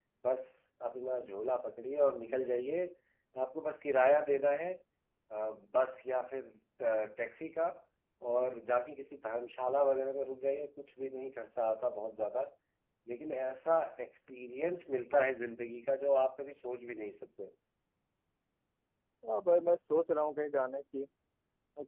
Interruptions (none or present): none